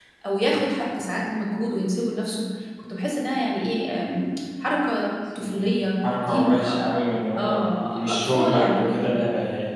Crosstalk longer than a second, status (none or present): present